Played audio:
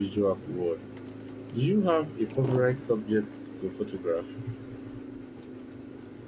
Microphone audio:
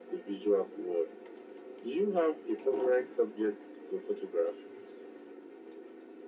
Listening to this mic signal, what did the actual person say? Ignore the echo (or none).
none